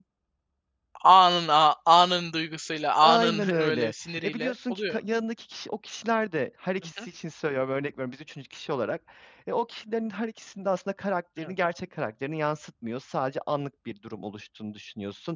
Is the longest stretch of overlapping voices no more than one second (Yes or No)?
No